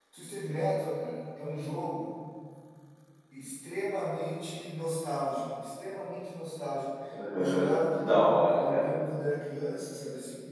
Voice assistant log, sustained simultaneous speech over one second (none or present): present